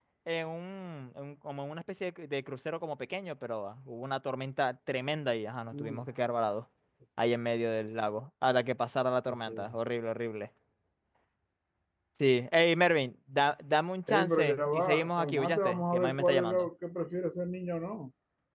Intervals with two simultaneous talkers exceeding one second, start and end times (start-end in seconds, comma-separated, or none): 14.1-16.7